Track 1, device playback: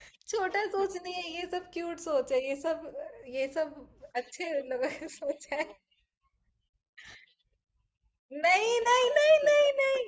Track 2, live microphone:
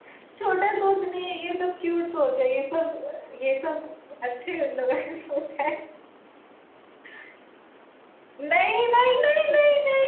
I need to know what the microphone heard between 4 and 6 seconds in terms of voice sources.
echo only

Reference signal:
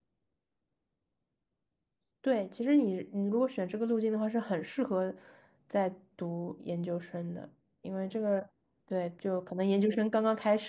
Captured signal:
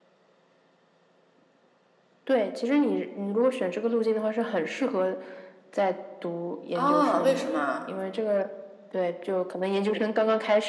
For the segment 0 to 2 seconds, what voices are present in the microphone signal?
neither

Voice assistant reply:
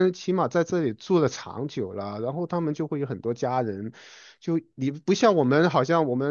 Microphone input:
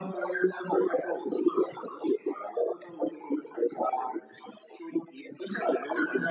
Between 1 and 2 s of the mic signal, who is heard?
echo only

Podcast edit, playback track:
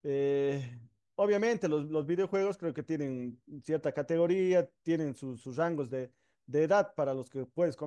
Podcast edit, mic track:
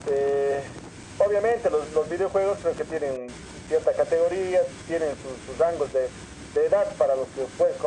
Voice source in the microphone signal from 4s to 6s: echo only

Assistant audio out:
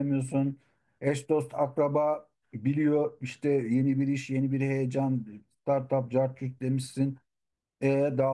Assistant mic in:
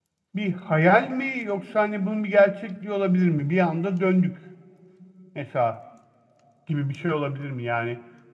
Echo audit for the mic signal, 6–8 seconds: user only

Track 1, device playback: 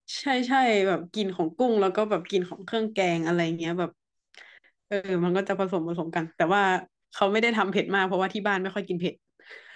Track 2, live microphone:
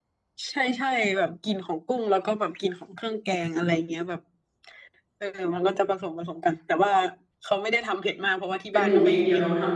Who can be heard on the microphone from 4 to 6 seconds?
echo only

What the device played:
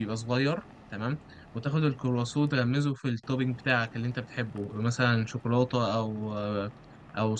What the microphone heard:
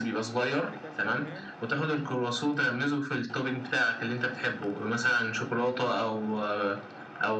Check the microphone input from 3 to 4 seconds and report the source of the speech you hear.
echo only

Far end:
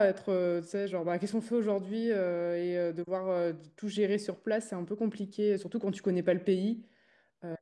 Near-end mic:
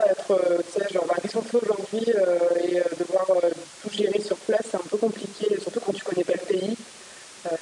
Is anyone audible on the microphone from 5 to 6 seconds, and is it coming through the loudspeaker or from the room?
echo only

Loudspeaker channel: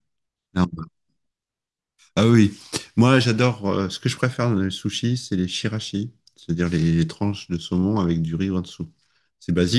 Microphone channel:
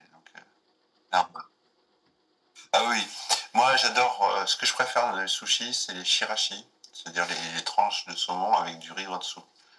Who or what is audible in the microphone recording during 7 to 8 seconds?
echo only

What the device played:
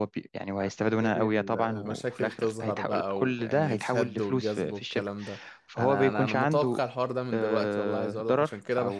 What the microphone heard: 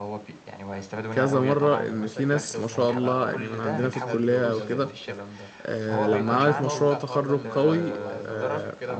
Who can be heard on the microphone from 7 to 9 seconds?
both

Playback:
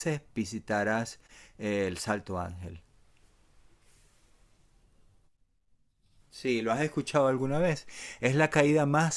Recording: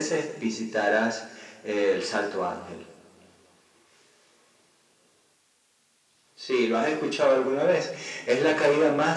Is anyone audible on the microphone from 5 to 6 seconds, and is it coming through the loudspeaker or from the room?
neither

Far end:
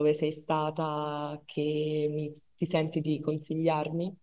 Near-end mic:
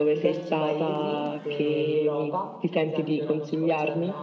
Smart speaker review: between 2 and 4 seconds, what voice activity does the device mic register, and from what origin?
both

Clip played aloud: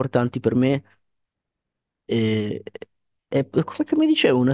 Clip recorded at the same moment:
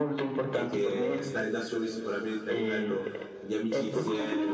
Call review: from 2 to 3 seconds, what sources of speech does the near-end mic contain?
both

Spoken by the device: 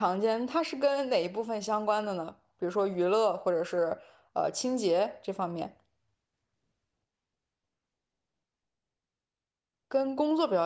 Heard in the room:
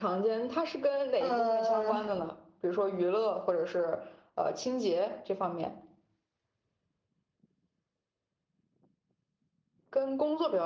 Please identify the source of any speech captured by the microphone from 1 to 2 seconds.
both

